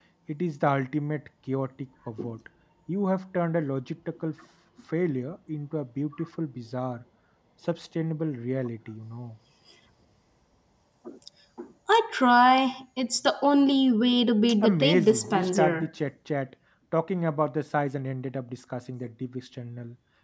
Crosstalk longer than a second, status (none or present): present